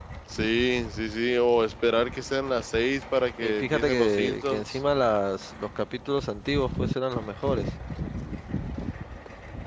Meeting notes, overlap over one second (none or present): present